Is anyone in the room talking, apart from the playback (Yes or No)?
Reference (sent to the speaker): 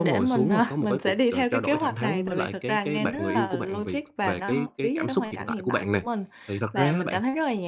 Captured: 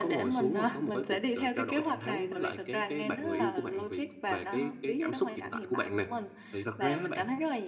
No